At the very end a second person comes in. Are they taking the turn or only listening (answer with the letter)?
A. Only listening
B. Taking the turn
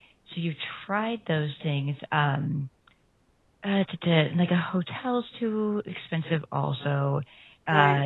B